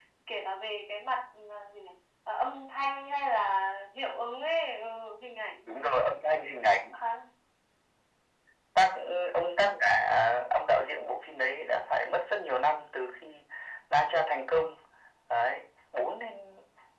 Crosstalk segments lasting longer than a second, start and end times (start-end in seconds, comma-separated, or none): none